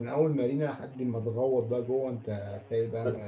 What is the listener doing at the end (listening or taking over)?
taking over